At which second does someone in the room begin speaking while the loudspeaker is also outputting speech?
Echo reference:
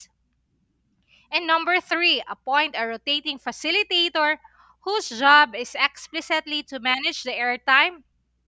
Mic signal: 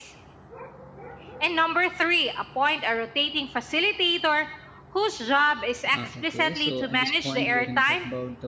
5.9 s

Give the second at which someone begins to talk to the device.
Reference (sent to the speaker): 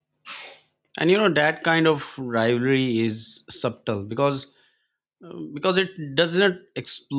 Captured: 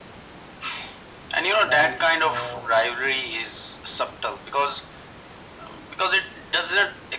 1.6 s

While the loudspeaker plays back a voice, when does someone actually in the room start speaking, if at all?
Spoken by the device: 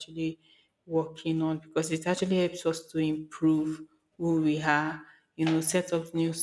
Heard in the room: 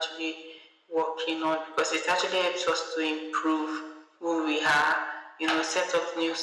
none

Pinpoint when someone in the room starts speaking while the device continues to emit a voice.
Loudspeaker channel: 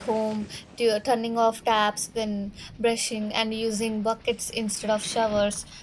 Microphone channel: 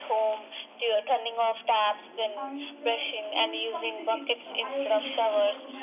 2.4 s

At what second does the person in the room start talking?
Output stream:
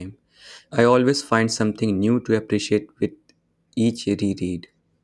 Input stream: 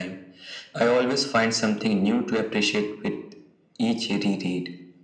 none

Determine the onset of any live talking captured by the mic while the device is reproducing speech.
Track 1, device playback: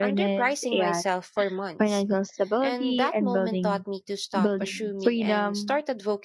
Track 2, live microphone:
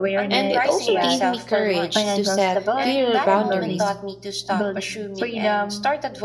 0.3 s

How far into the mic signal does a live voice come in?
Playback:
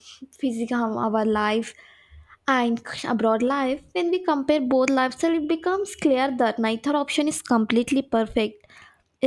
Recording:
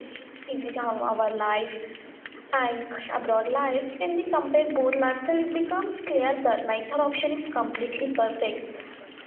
none

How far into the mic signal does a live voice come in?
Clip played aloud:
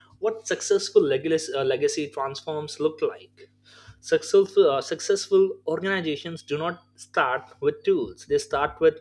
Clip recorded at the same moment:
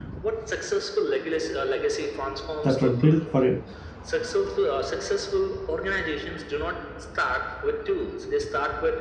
2.6 s

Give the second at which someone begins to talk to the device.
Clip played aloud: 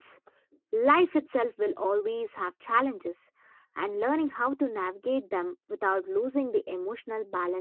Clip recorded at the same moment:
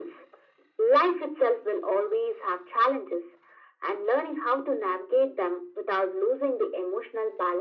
none

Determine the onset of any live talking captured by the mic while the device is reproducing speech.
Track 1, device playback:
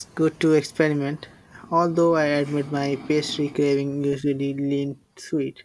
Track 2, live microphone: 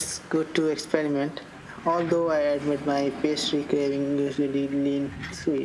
none

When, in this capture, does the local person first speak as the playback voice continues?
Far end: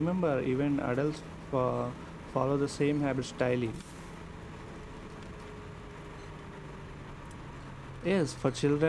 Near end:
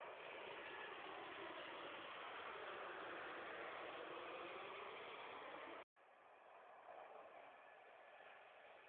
none

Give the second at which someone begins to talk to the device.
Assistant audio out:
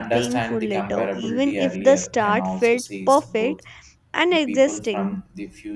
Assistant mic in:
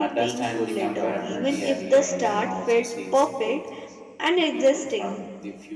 0.4 s

